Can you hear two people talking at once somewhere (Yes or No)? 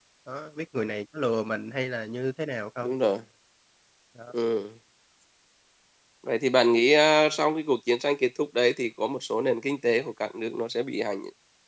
No